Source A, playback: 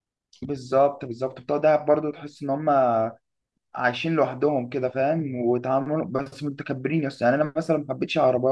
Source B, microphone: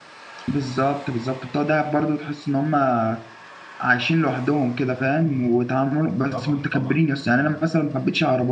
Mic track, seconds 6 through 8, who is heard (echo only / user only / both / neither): both